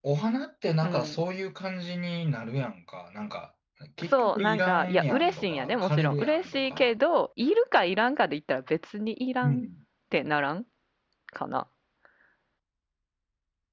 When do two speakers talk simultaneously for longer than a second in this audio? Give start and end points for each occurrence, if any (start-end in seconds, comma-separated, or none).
4.0-6.9